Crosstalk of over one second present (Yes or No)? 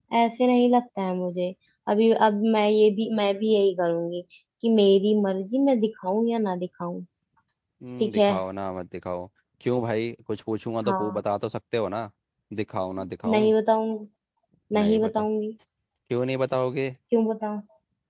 No